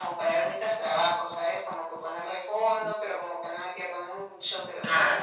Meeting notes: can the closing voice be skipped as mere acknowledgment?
Yes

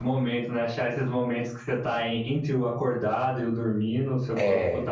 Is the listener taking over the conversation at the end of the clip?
No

